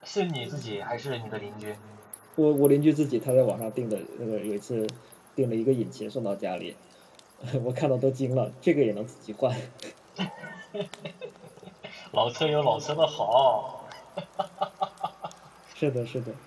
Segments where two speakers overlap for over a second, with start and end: none

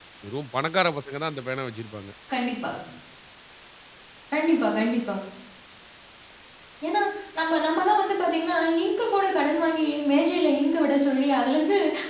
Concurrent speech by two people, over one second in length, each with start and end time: none

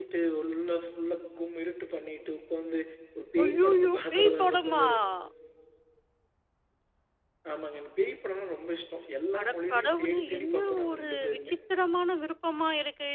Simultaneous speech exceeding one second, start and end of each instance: 3.4-4.8, 9.4-11.5

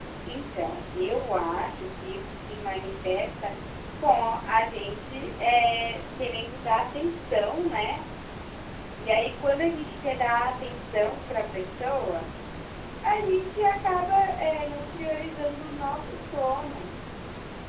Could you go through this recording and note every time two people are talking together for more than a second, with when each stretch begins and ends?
none

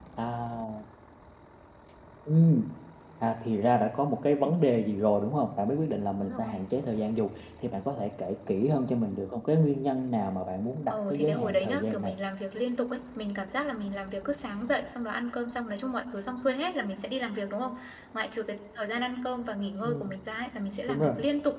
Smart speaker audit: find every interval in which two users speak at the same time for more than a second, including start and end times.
10.9-12.1

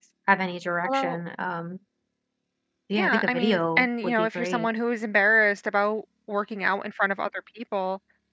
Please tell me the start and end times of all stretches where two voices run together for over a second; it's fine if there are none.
3.0-4.7

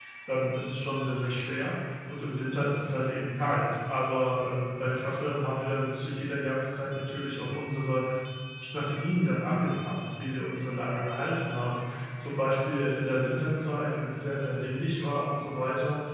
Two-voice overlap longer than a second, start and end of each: none

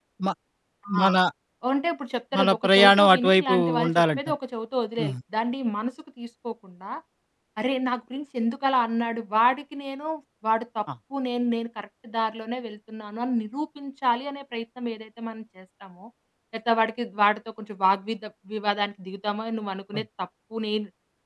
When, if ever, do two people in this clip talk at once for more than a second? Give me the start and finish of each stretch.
2.4-4.2

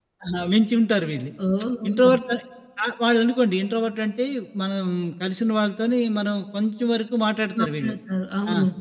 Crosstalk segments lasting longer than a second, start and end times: none

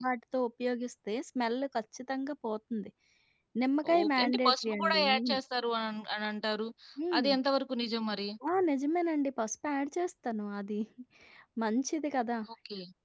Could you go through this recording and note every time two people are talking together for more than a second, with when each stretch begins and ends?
4.0-5.4

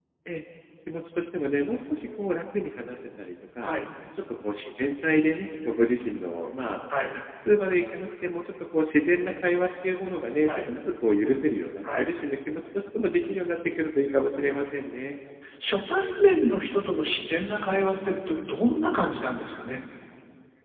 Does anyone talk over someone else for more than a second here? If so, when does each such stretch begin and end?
none

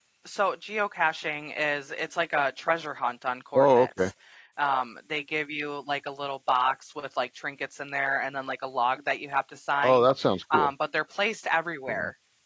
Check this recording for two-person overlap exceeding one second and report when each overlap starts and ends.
none

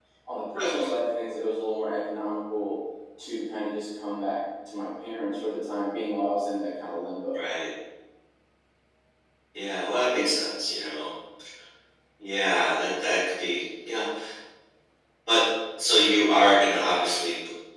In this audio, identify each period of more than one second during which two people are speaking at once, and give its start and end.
none

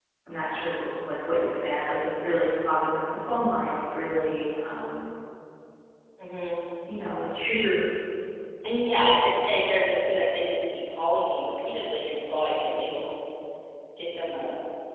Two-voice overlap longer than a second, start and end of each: none

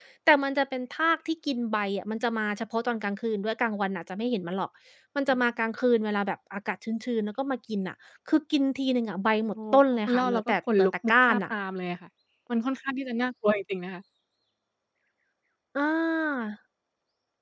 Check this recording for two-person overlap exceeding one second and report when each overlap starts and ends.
9.7-11.5

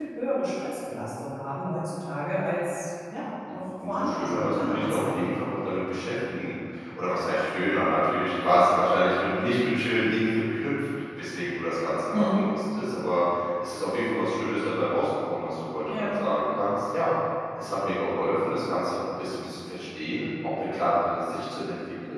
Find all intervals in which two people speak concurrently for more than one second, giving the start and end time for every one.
3.9-5.3

